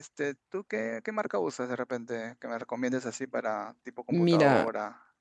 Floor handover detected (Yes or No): Yes